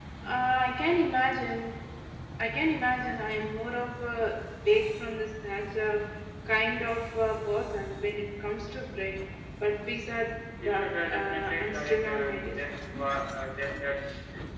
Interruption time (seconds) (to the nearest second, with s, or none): 11 s